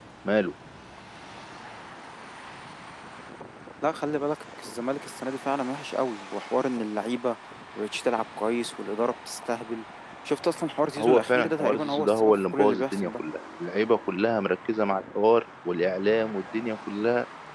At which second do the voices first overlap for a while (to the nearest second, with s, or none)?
11 s